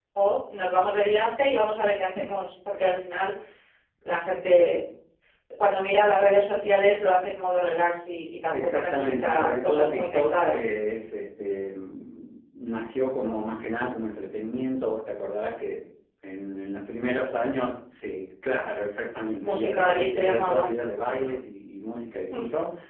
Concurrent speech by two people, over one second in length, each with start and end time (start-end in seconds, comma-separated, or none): 8.5-10.7, 19.4-20.6